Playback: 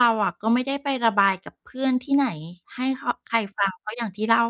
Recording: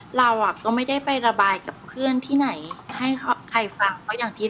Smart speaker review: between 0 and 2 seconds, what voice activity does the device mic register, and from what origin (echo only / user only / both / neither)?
echo only